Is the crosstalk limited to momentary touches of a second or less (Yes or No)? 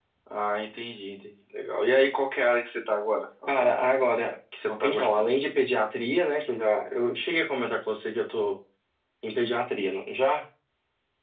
Yes